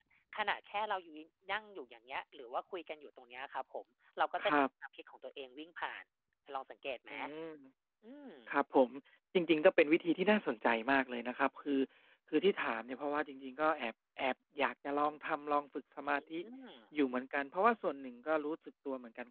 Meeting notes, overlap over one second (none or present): none